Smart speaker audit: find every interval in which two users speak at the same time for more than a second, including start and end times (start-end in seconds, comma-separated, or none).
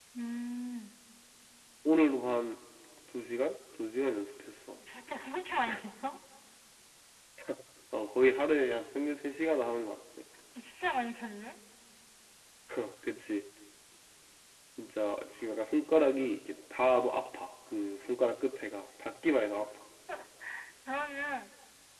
none